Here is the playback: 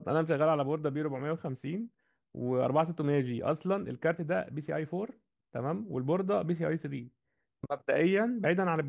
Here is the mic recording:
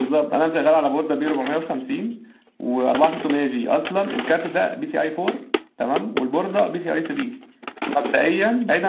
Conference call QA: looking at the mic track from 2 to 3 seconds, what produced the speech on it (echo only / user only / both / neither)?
echo only